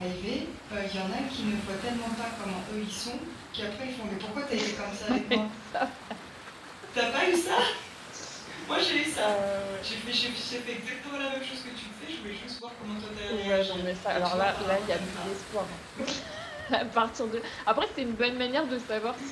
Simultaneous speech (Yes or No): Yes